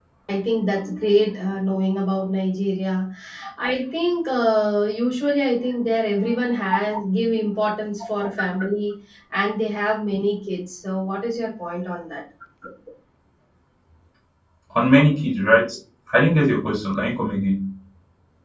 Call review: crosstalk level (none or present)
none